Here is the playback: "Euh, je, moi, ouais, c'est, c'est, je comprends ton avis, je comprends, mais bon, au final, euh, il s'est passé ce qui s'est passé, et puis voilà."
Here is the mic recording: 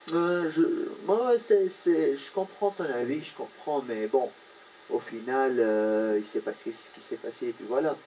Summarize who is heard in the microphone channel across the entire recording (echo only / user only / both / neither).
echo only